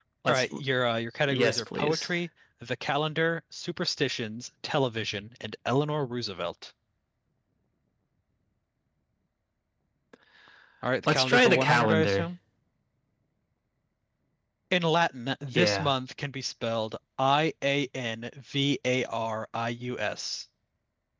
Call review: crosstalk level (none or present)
present